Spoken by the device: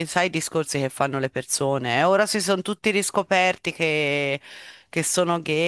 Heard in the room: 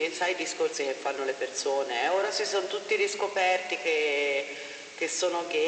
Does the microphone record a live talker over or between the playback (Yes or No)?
No